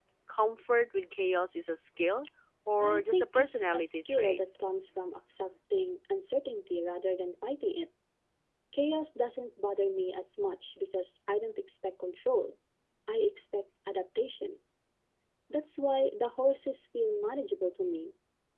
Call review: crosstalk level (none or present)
present